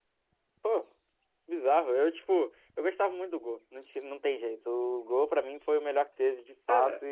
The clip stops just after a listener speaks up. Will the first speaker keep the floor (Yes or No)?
No